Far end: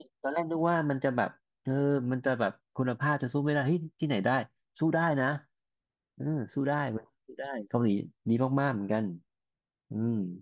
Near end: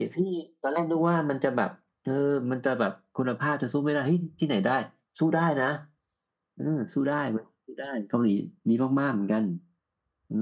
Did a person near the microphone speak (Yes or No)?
No